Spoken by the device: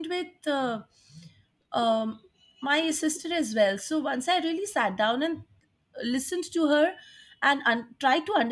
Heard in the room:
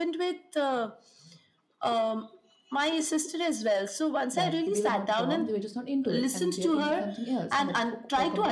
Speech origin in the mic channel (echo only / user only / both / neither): both